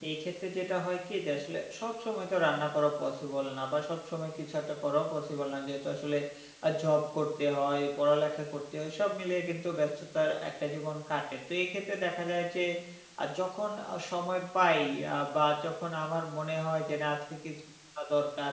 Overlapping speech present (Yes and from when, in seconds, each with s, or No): No